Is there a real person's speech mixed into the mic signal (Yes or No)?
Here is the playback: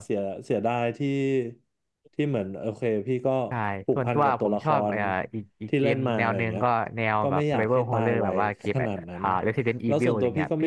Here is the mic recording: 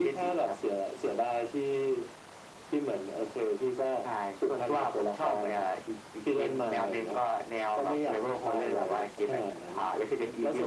No